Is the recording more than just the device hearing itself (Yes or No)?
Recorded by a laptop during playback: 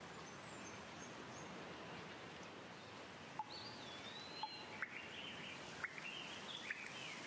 No